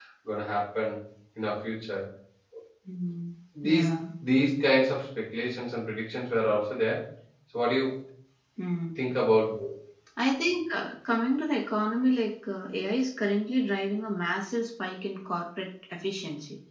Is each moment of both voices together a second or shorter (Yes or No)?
Yes